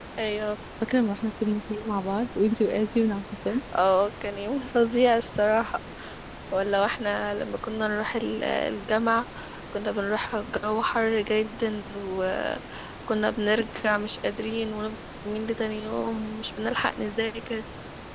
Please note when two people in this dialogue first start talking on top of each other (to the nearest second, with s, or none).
none